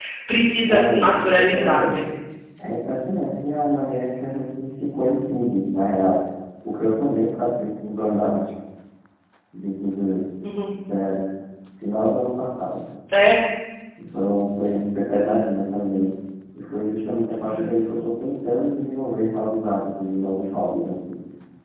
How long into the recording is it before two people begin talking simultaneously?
0.7 s

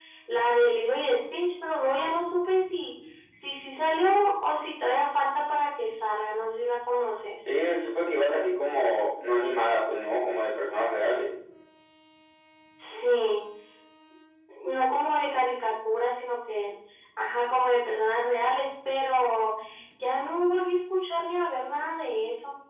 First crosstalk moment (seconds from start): none

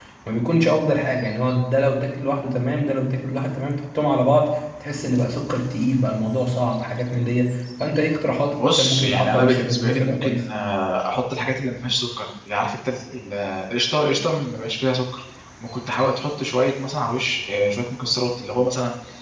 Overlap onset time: 8.5 s

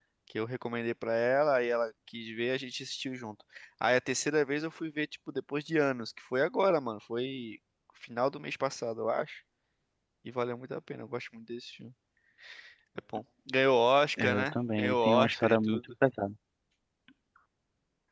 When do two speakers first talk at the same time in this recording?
14.2 s

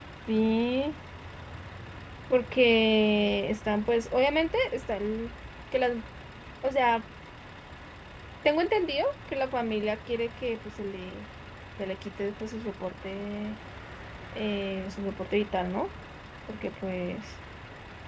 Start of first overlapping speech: none

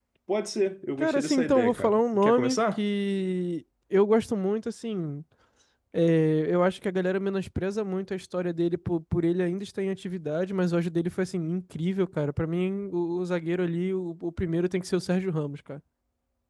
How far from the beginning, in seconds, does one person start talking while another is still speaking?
1.0 s

